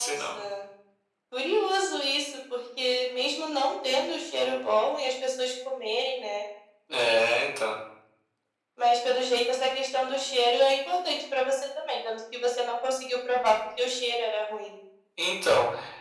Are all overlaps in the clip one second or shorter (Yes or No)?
Yes